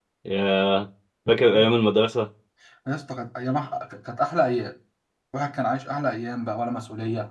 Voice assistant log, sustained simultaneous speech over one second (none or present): none